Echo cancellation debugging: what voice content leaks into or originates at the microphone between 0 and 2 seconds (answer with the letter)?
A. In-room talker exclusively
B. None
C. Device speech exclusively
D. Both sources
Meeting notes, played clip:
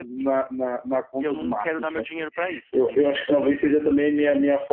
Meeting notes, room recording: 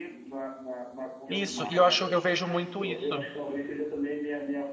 D